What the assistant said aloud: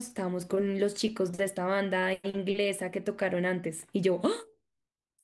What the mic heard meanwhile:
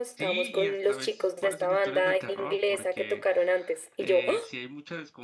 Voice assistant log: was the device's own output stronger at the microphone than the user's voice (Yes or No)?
Yes